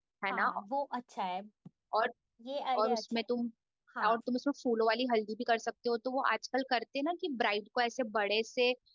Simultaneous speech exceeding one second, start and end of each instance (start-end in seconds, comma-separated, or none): none